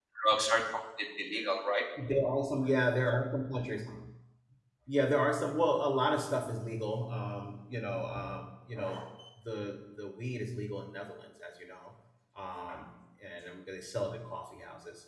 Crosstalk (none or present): none